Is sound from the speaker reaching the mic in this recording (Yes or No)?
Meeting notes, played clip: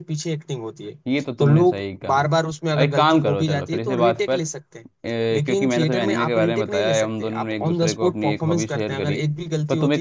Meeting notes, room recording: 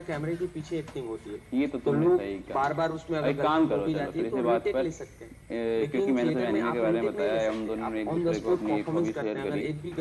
Yes